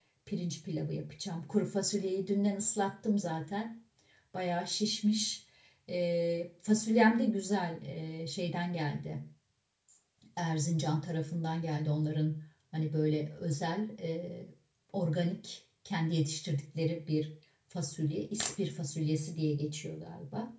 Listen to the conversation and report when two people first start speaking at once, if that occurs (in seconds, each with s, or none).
none